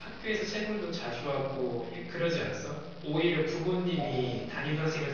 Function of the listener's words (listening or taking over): listening